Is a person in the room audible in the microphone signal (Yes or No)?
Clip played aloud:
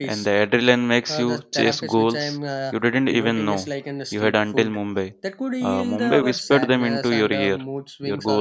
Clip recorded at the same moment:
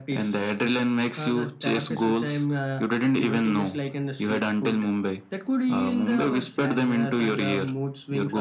No